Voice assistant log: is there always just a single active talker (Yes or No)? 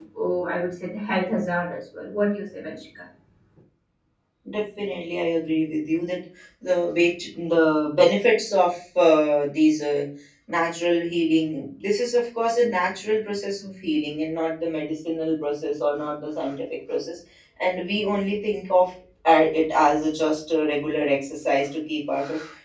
Yes